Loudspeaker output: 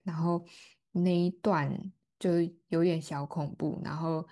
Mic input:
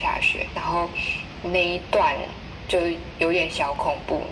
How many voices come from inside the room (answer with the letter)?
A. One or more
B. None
B